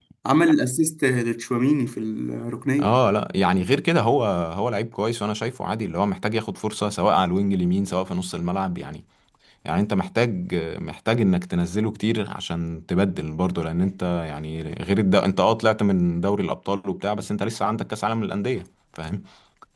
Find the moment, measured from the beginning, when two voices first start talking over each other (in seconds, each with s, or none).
none